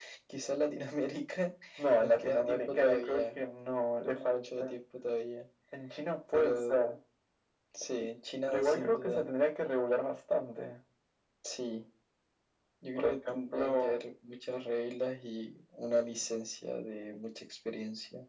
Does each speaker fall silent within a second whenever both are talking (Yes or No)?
No